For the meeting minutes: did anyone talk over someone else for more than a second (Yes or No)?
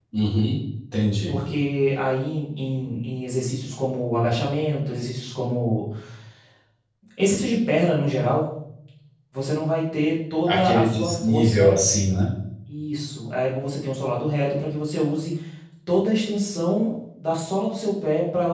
Yes